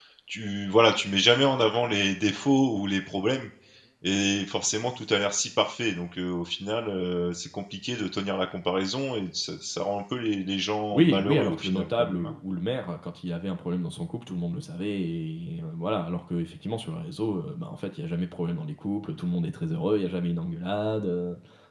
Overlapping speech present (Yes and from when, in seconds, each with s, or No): Yes, from 10.9 s